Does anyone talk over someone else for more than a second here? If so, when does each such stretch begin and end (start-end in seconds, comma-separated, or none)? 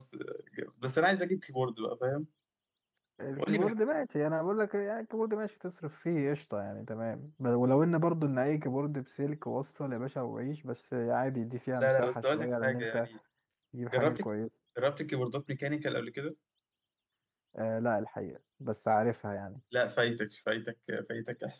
11.8-13.1